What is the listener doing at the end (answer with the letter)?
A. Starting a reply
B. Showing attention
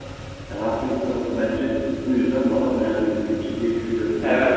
A